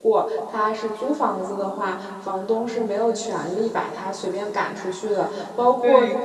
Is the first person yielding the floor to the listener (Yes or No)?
No